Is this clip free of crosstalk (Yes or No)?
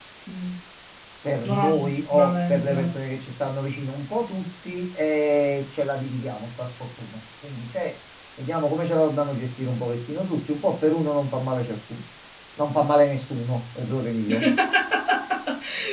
No